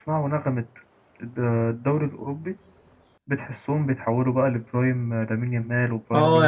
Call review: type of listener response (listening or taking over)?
taking over